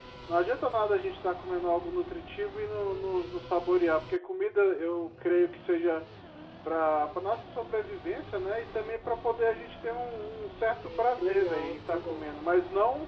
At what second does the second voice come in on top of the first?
10.8 s

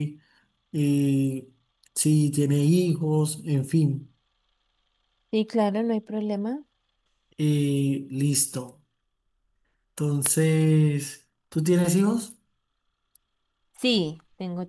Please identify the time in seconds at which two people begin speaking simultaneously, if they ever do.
none

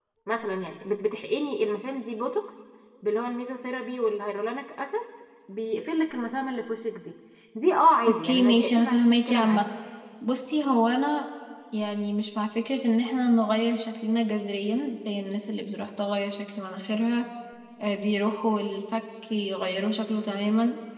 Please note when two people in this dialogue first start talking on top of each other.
8.1 s

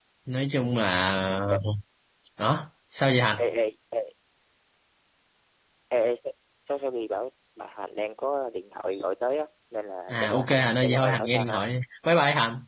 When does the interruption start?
10.1 s

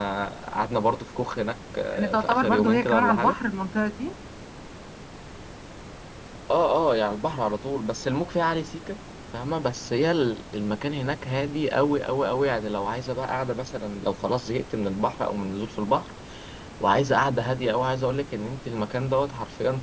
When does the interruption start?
1.9 s

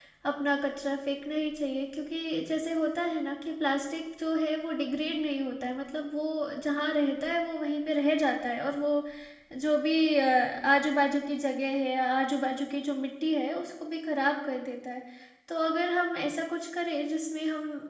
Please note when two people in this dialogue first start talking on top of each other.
none

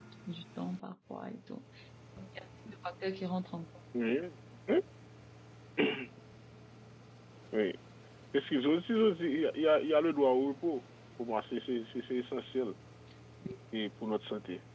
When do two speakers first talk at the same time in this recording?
none

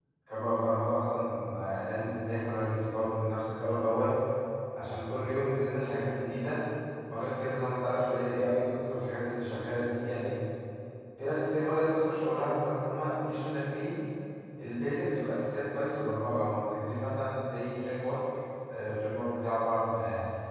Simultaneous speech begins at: none

